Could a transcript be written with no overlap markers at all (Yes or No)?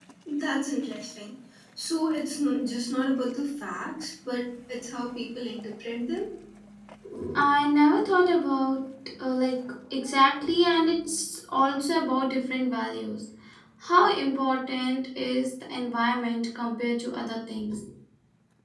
Yes